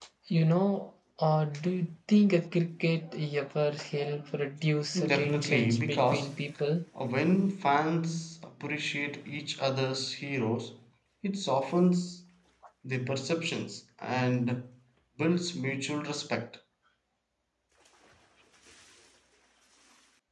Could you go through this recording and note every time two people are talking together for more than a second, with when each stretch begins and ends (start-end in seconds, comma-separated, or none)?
5.0-6.3